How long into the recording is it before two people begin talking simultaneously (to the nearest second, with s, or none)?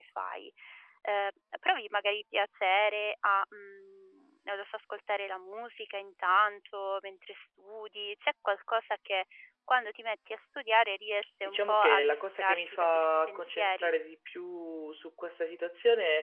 11 s